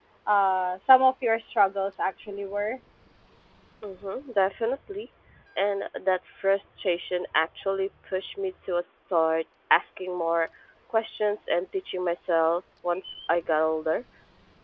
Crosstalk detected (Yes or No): No